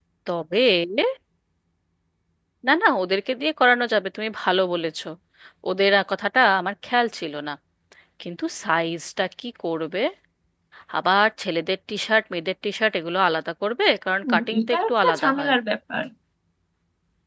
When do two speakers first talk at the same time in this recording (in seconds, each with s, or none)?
14.2 s